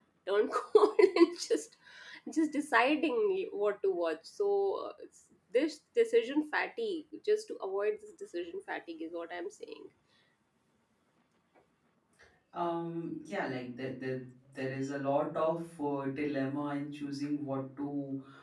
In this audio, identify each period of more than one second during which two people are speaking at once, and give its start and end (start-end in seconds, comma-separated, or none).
none